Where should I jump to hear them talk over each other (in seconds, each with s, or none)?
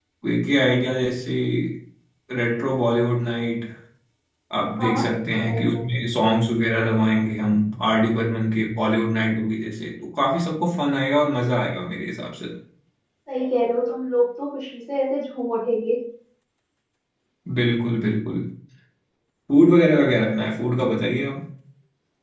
4.8 s